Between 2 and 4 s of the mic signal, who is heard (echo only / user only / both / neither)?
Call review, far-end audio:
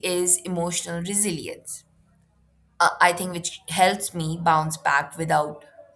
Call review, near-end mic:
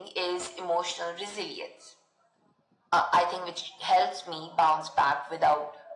echo only